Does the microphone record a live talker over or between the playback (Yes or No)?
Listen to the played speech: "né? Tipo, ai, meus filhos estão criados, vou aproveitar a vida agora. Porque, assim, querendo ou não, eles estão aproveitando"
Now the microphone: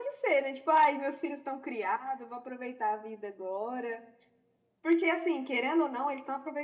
No